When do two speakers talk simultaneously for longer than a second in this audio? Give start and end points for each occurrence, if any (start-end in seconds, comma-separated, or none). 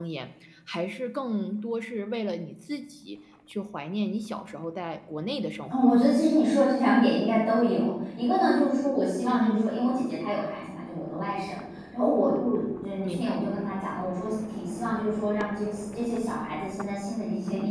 none